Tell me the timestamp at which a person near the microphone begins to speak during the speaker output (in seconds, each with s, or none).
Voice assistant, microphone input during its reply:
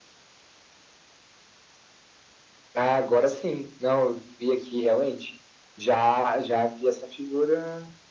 none